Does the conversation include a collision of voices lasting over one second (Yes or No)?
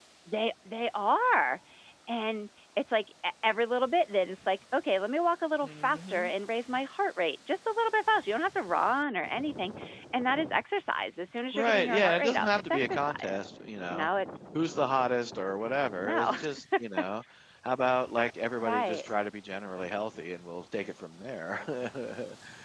Yes